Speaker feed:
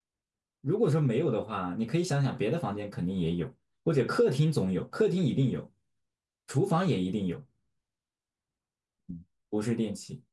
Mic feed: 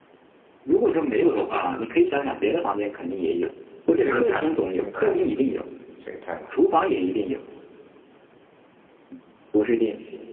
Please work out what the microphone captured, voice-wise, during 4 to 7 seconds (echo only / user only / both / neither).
both